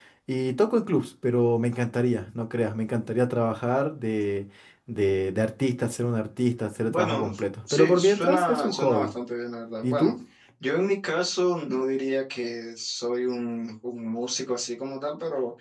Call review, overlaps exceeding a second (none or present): present